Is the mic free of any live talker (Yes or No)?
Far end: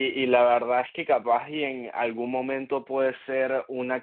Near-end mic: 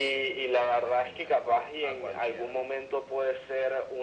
No